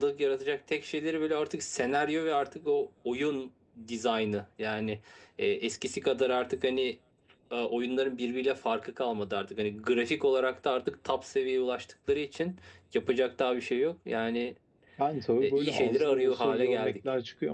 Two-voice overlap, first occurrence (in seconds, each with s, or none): 15.4 s